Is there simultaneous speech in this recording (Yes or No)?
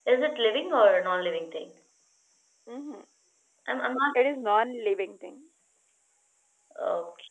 No